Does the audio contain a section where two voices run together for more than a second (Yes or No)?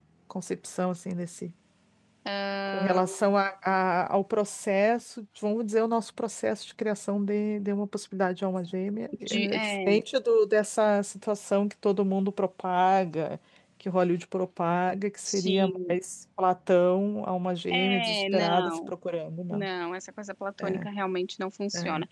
Yes